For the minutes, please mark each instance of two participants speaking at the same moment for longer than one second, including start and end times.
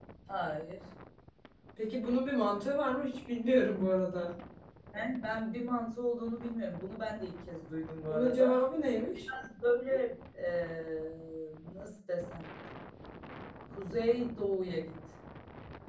none

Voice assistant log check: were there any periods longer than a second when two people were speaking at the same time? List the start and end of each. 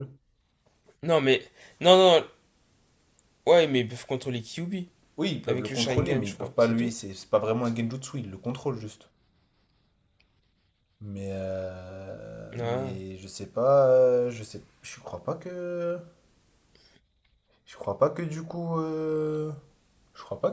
5.5-6.9

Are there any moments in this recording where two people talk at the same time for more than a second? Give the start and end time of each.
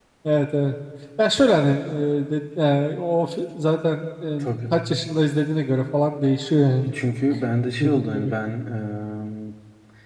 none

